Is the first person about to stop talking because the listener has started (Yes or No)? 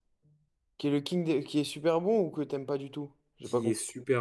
Yes